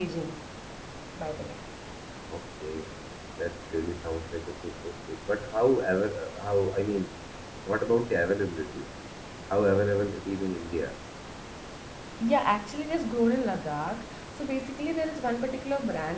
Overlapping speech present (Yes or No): No